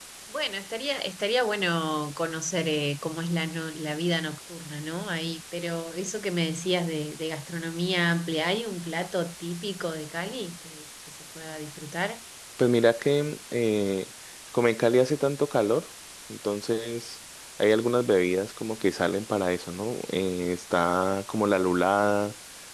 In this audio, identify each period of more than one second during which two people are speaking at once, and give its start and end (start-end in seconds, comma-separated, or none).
none